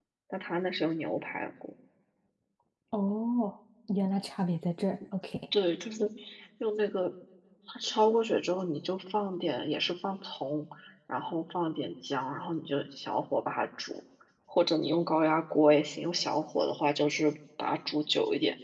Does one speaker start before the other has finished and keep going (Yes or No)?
No